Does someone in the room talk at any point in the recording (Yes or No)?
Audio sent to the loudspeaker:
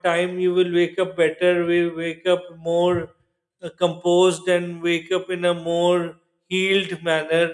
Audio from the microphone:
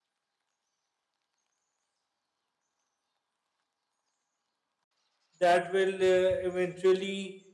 Yes